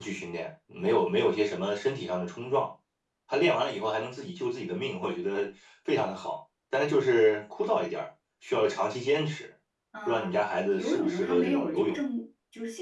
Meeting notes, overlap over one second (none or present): present